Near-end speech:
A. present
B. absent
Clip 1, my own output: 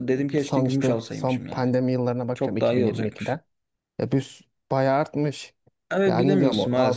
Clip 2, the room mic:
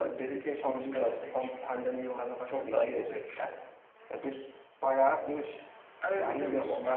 B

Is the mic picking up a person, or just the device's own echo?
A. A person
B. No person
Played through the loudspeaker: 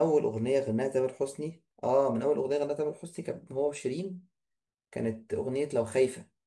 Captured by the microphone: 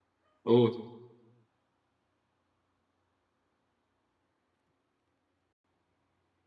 A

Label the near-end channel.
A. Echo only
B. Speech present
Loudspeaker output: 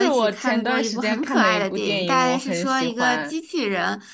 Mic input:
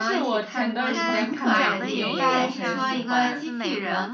B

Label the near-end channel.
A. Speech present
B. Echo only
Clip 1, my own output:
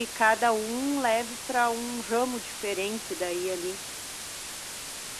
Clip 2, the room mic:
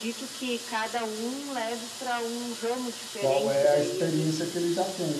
A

